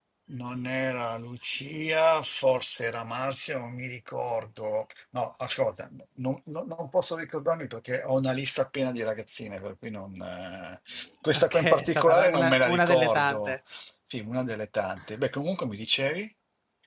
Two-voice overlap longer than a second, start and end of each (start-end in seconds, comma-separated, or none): 11.3-13.5